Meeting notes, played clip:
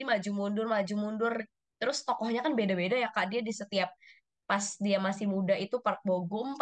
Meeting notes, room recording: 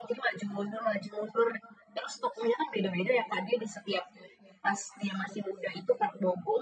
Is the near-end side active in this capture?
No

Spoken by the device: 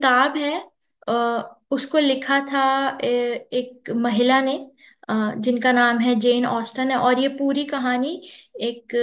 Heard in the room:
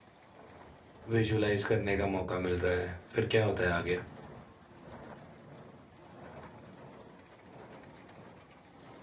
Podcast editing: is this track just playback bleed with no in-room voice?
No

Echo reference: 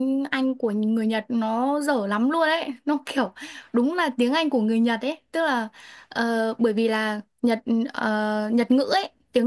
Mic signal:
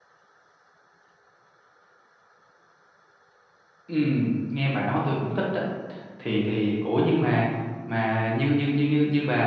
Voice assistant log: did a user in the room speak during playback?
Yes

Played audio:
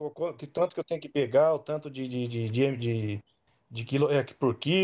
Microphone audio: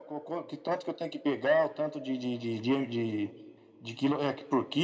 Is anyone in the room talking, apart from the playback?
No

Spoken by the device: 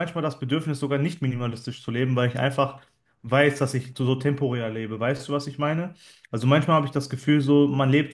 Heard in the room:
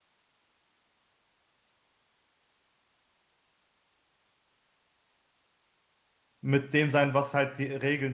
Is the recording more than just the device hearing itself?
Yes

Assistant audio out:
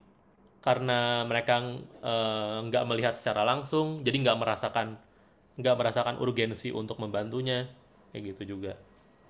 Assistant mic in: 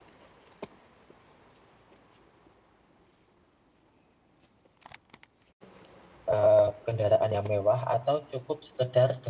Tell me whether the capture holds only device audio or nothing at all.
No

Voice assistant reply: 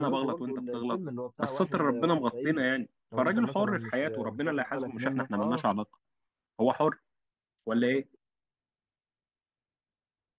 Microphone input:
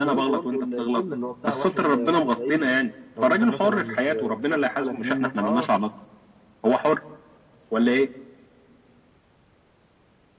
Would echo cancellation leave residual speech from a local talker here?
No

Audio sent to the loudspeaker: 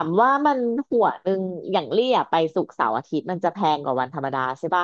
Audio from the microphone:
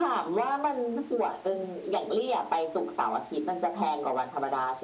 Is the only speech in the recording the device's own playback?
Yes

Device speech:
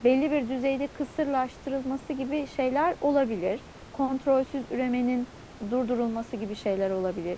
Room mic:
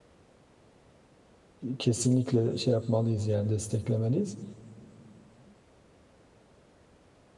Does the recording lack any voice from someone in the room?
No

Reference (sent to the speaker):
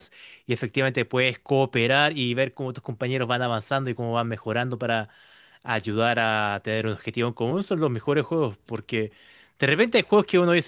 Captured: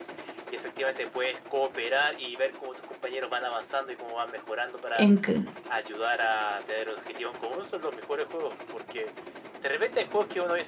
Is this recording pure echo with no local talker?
No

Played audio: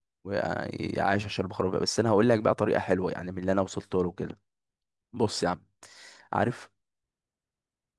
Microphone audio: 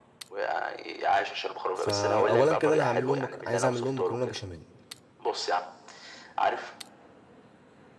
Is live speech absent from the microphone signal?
No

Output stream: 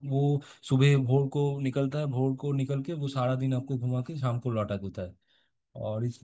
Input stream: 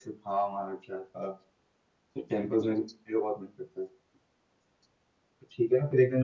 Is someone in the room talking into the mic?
Yes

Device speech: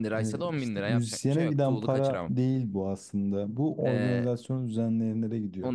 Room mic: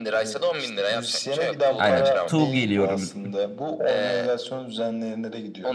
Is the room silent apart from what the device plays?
No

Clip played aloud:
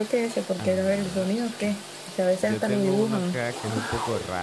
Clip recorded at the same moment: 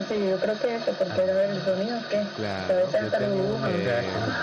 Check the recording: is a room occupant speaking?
Yes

